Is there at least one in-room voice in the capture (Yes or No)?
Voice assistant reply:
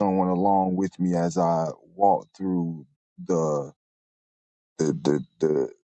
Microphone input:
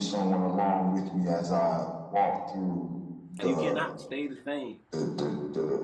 Yes